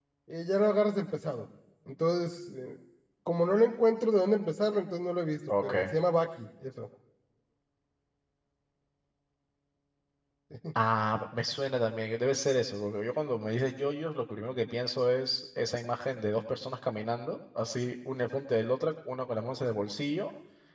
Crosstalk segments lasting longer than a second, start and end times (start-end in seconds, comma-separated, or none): none